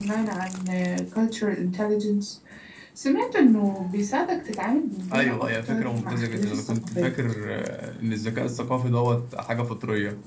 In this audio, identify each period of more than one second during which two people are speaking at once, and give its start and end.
5.1-7.1

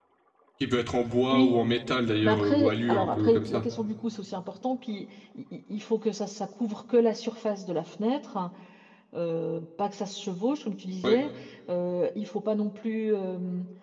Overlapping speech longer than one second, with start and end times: 2.2-3.6

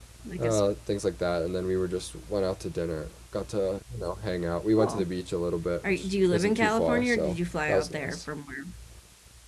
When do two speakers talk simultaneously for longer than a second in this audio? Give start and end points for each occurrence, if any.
5.9-8.2

